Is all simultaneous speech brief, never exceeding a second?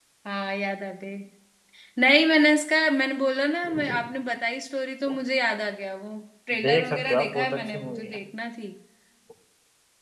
No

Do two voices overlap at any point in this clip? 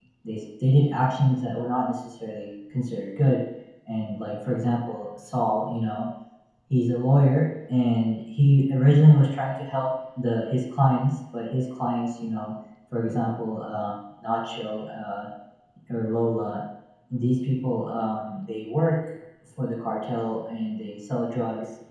No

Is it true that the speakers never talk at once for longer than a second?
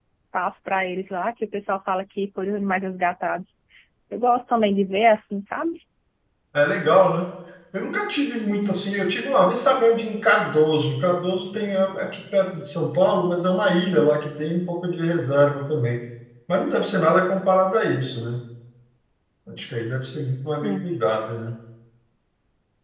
Yes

